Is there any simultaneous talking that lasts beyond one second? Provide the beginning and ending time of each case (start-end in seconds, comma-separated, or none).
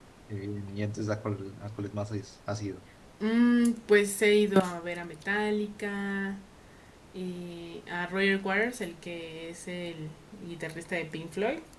none